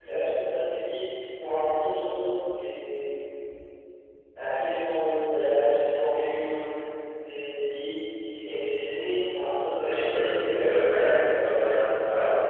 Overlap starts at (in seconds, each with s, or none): 9.8 s